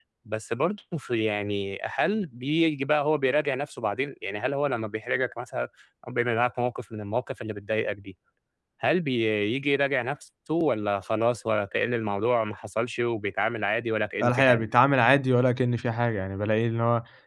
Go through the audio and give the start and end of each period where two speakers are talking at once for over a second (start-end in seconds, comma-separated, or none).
none